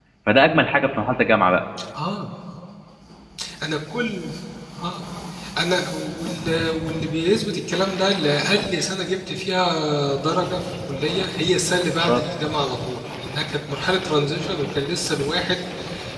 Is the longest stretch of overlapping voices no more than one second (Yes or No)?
Yes